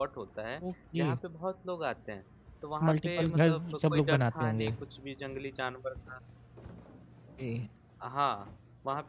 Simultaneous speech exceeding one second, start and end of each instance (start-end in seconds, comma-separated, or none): 2.9-4.7